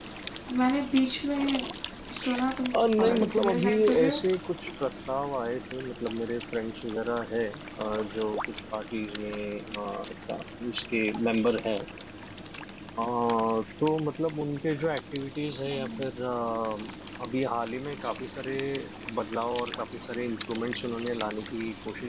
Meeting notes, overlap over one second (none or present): present